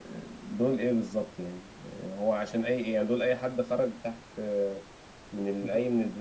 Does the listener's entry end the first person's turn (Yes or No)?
No